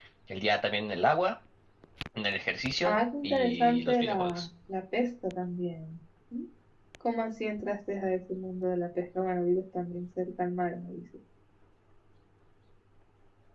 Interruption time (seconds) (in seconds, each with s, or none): 2.8 s